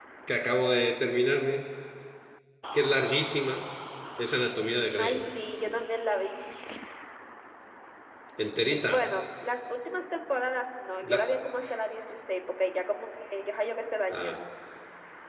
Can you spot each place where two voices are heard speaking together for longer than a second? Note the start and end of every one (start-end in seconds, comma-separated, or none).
none